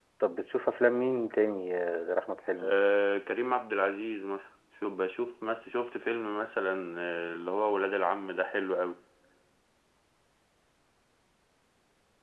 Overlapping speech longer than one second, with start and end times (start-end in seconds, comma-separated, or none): none